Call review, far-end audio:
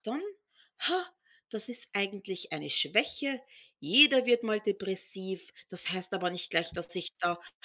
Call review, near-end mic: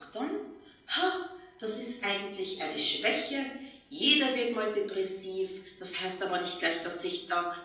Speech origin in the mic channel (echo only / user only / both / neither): echo only